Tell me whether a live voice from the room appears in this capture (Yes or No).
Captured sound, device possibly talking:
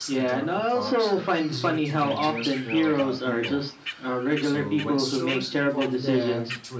Yes